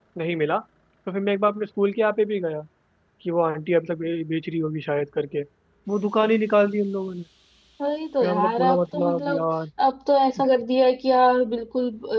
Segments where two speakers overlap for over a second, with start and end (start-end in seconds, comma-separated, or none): 8.2-9.4